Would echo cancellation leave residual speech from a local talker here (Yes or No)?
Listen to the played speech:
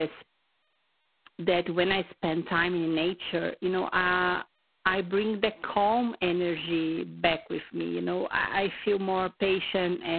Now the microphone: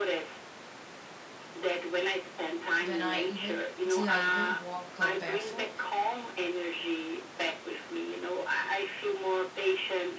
Yes